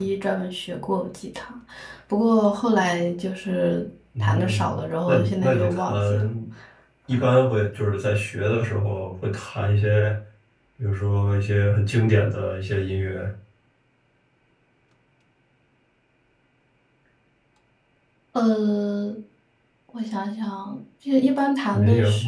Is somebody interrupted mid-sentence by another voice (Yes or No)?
Yes